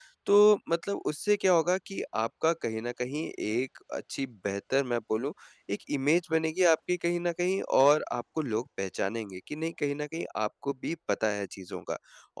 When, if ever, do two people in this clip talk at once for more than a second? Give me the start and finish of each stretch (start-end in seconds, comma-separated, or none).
none